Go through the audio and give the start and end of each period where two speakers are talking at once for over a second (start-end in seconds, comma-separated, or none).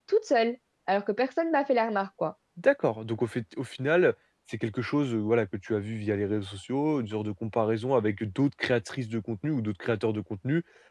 none